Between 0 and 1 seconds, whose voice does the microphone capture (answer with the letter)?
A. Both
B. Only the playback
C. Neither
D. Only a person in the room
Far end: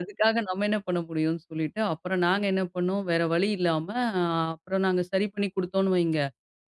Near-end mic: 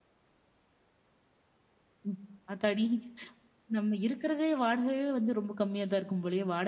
C